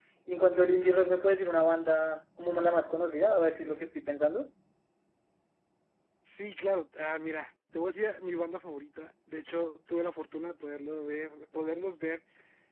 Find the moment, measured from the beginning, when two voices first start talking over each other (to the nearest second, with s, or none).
none